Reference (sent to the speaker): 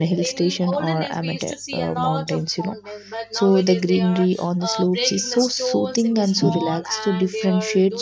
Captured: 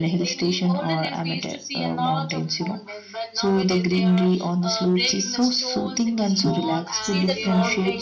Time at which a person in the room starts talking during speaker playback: 7.1 s

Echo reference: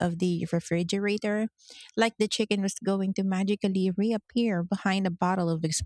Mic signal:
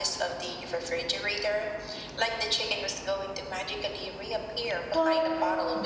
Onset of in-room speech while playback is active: 4.9 s

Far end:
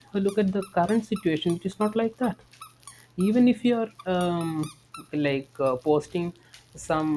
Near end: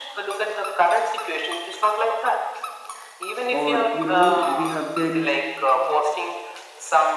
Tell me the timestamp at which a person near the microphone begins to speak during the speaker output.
3.5 s

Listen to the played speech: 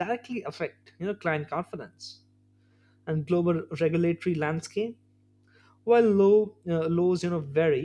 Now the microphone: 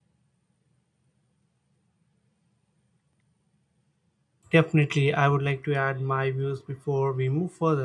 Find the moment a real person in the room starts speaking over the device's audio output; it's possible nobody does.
4.6 s

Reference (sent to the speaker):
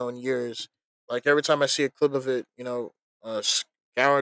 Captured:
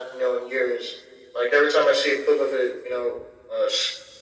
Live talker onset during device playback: none

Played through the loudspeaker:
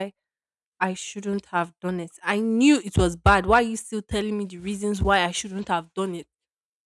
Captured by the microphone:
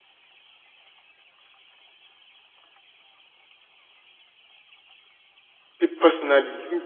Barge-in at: 5.8 s

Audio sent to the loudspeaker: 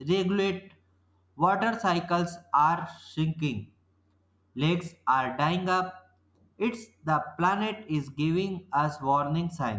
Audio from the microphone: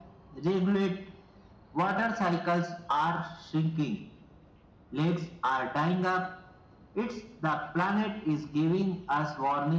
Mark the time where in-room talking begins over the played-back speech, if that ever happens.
none

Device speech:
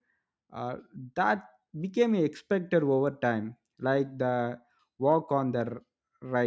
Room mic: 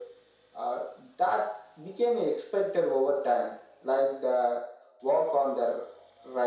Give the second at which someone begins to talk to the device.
none

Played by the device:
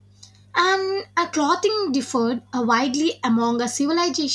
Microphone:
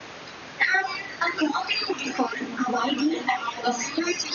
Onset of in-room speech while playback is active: none

